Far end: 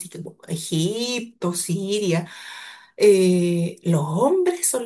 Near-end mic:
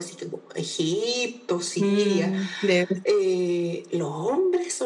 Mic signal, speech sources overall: both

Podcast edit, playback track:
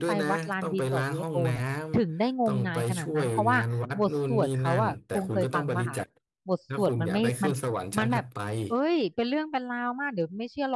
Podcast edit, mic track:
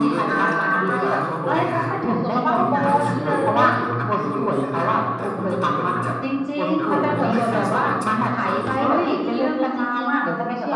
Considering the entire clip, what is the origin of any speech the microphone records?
both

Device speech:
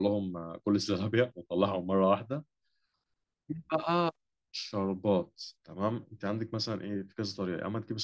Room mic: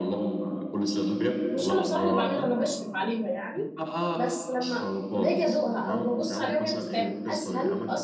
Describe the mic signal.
both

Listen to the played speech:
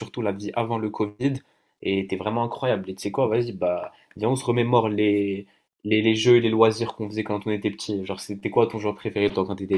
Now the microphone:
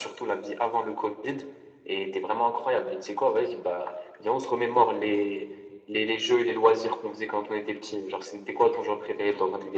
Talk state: echo only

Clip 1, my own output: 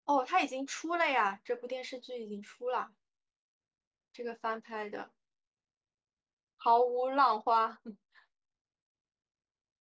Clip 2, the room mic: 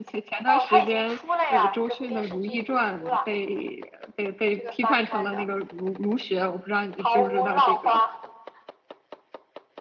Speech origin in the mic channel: both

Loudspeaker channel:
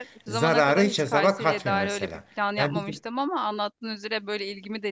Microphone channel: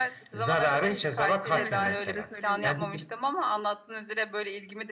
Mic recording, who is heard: both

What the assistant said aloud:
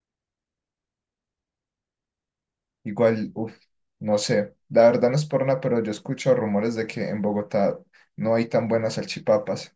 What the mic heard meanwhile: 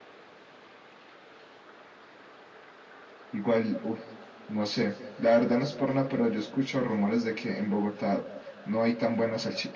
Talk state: echo only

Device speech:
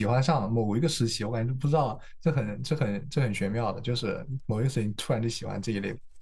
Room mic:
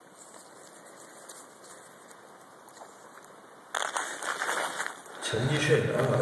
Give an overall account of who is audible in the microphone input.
user only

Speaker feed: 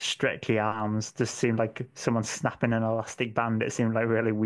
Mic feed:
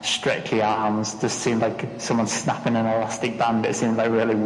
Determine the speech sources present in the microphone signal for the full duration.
echo only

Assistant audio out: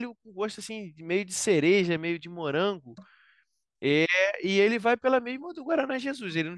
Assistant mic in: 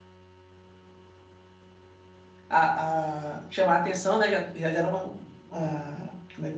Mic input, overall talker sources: user only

